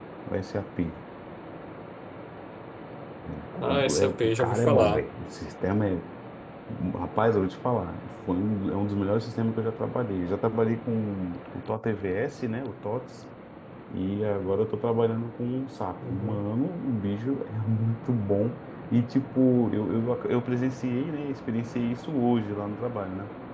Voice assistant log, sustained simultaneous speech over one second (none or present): present